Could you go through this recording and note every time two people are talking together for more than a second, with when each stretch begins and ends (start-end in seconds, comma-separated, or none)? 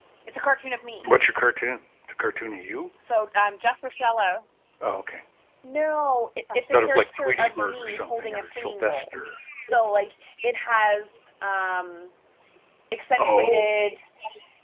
6.5-9.1